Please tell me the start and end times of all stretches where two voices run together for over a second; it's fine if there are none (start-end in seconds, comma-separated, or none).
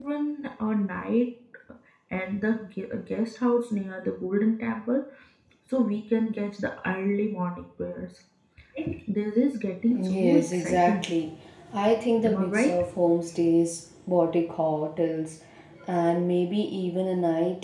9.9-11.1